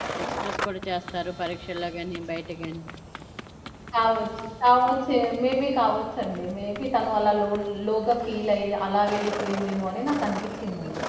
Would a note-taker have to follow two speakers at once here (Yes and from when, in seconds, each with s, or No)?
No